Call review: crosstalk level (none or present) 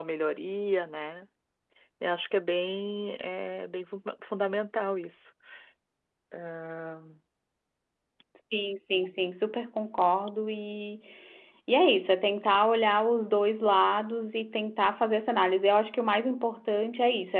none